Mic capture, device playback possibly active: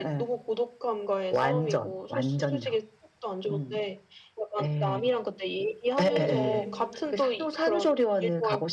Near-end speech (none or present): present